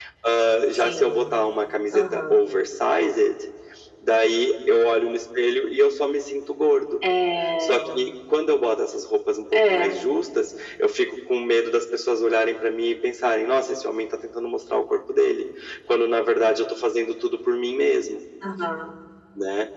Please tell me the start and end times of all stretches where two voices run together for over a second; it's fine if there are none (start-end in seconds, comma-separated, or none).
none